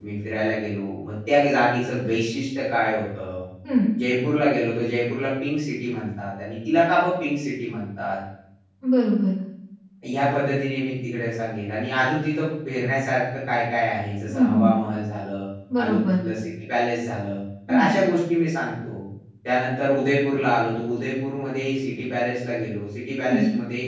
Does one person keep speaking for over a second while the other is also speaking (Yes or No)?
No